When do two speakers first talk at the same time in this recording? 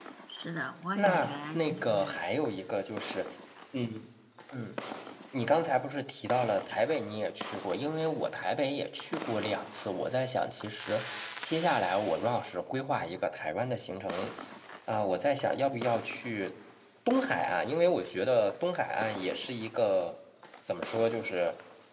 0.9 s

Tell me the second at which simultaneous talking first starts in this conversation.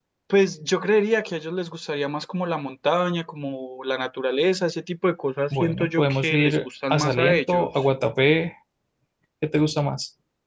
5.5 s

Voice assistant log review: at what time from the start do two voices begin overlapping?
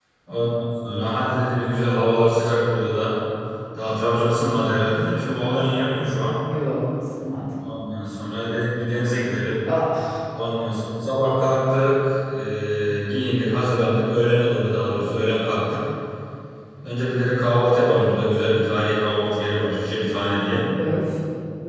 none

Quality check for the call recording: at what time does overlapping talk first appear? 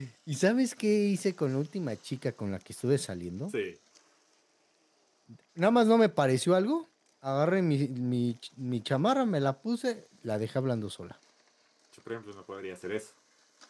none

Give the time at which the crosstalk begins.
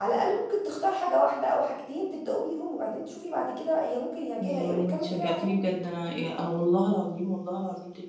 4.4 s

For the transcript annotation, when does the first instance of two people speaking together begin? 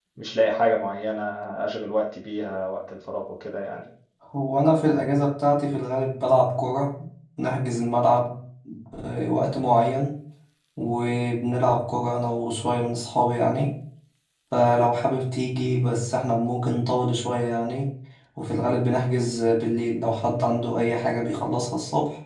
none

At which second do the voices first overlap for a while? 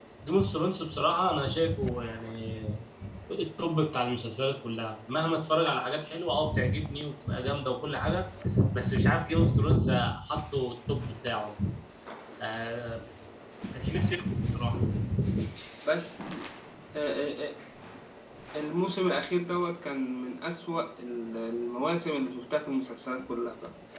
none

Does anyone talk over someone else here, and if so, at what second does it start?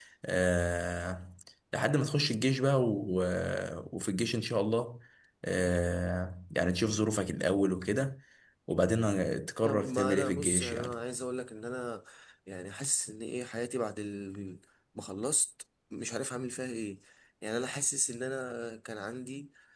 9.6 s

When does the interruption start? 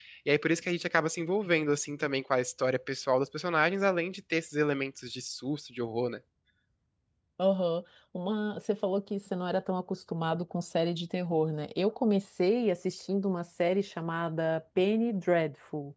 none

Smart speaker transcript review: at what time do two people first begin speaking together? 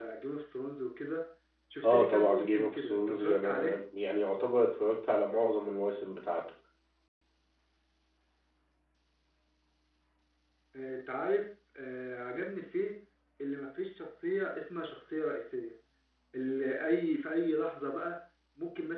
1.8 s

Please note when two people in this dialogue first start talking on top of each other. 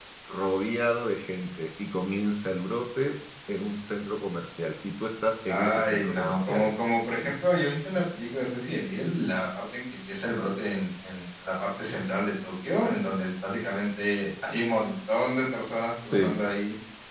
5.5 s

